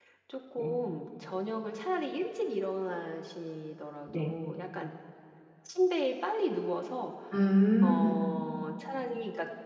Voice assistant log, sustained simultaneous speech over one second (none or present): none